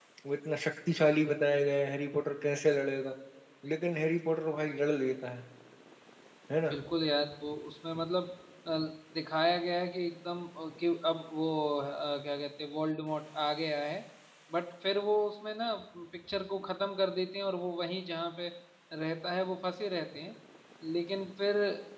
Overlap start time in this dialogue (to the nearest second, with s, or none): none